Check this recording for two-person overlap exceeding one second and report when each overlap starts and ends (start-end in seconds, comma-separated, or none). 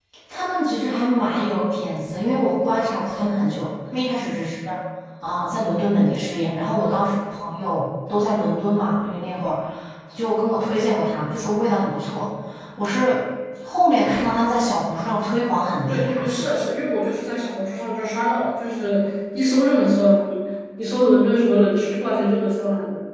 none